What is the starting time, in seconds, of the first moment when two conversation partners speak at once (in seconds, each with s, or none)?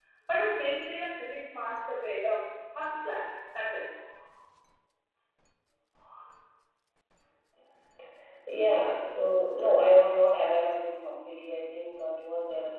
none